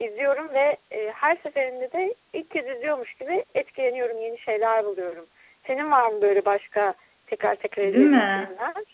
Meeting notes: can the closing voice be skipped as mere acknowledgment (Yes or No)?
No